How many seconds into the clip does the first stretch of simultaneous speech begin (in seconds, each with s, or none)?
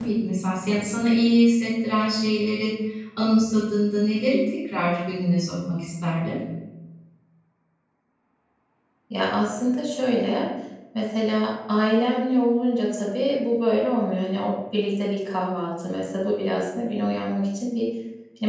none